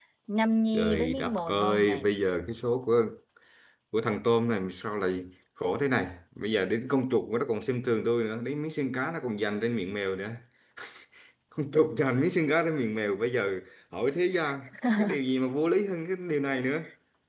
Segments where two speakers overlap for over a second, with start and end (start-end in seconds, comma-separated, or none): 0.7-2.1